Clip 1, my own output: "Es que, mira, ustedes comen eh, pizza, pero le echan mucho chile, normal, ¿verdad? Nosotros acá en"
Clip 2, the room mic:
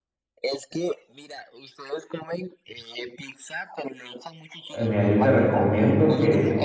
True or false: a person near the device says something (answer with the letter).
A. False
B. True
B